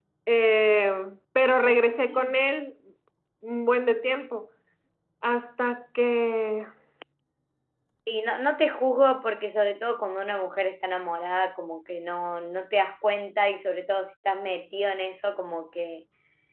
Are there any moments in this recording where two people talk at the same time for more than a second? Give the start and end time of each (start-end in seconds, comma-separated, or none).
none